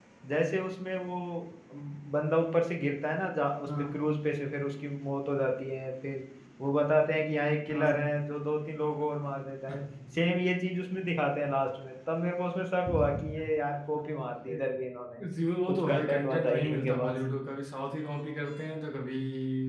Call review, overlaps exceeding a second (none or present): present